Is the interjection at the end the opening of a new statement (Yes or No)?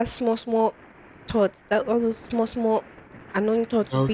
No